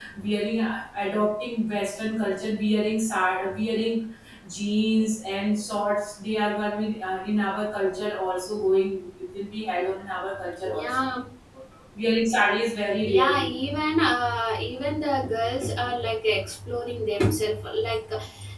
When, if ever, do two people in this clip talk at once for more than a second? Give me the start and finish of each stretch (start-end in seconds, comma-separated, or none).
none